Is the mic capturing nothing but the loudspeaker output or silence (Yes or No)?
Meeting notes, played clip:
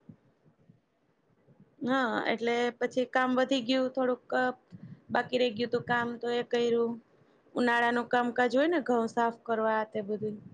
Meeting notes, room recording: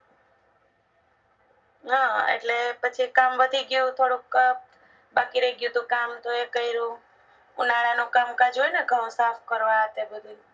Yes